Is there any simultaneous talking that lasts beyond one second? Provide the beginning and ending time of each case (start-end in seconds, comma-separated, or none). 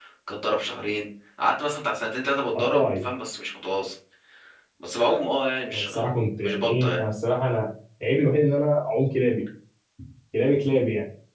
5.7-7.0